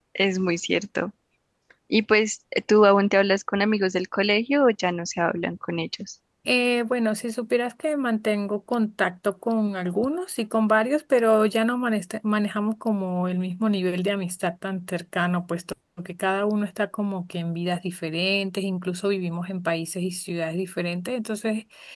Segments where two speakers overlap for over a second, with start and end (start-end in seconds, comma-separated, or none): none